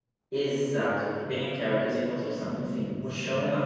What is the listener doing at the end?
listening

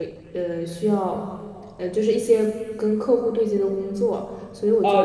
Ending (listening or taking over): taking over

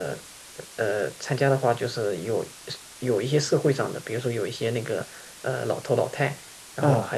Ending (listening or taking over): listening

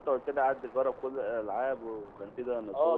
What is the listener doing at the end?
taking over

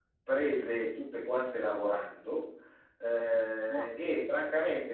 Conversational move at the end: listening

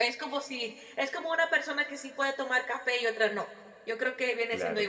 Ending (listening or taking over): listening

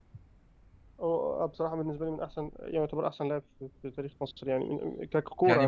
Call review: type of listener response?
taking over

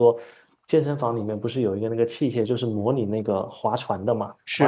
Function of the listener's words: taking over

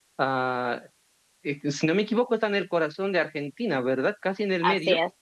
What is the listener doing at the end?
taking over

